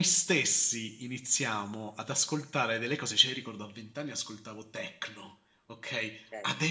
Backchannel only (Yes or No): Yes